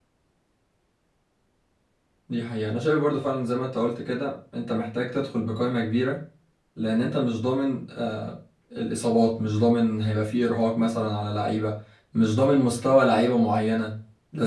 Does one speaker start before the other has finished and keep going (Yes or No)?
No